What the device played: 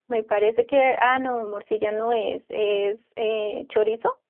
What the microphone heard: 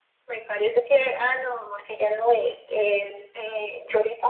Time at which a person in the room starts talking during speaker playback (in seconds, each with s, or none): none